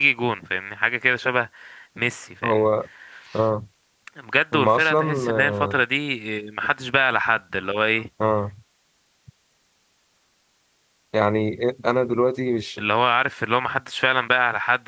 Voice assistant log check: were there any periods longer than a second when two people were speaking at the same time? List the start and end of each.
4.5-5.8

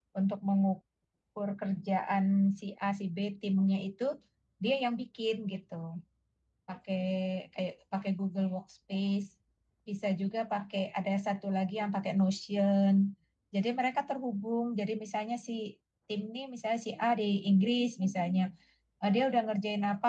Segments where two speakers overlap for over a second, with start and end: none

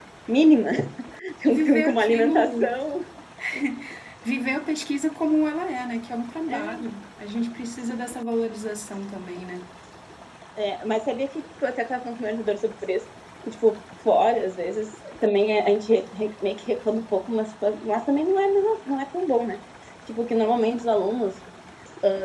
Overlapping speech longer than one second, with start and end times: 1.4-2.7

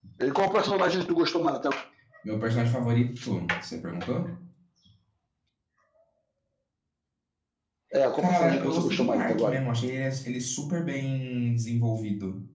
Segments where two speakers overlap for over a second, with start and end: 8.2-9.6

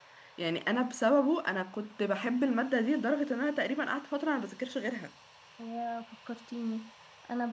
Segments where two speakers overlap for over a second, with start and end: none

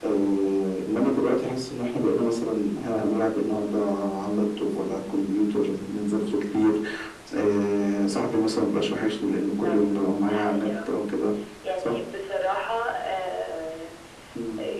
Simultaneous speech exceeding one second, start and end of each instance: 9.6-10.9

